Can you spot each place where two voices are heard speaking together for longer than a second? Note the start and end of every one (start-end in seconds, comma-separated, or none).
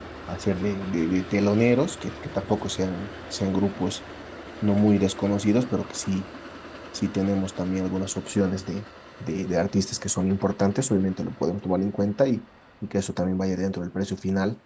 none